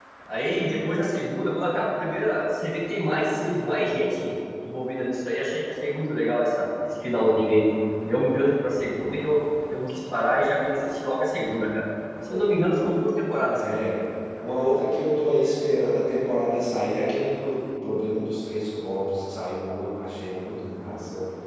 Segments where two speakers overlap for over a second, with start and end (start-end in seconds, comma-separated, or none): none